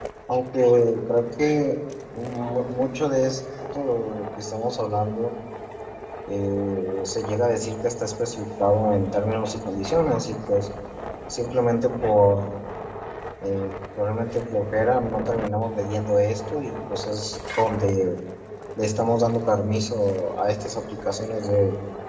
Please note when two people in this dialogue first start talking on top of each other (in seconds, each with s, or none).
none